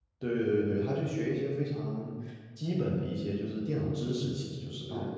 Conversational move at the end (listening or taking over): taking over